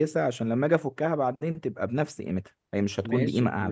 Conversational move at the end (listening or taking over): taking over